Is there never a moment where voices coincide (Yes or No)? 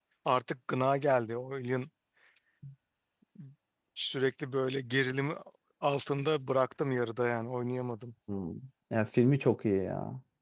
Yes